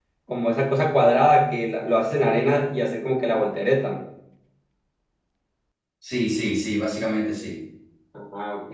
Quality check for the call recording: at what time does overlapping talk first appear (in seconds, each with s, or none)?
none